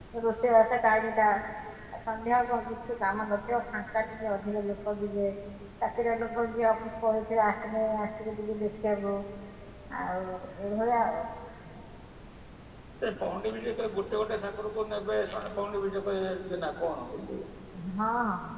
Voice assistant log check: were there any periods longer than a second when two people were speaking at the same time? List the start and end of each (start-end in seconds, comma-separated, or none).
none